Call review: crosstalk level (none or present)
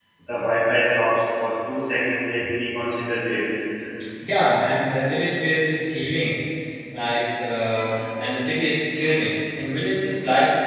none